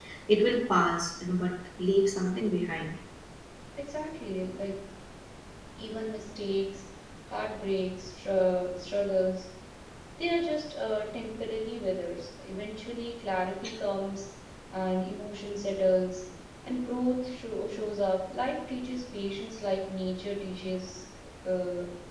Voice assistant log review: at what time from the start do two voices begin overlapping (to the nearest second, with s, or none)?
none